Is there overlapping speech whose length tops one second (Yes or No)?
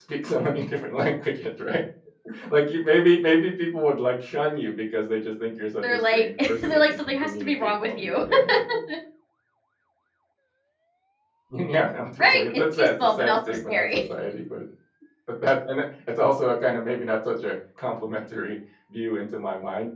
Yes